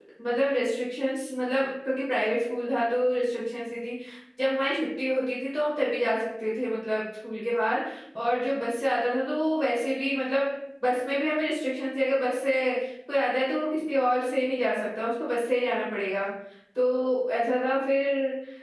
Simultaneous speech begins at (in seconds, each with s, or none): none